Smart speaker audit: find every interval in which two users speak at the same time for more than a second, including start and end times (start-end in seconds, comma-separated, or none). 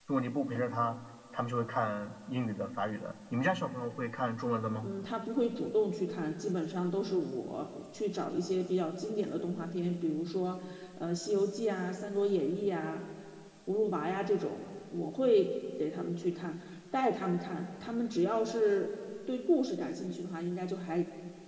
none